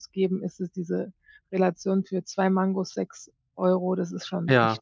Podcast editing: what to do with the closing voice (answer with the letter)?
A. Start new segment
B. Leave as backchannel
A